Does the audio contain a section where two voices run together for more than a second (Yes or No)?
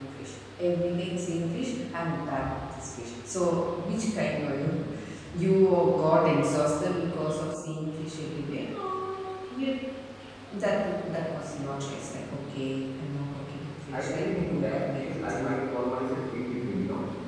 Yes